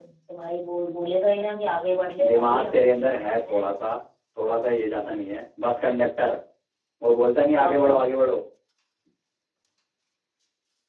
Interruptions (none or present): present